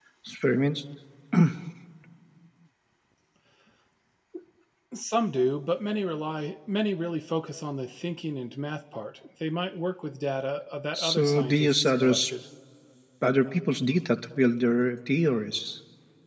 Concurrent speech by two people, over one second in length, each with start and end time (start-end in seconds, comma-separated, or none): 10.9-12.2